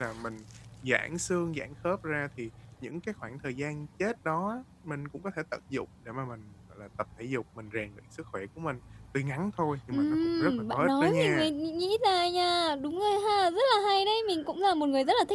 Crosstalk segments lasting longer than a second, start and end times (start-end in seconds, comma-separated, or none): 9.9-11.5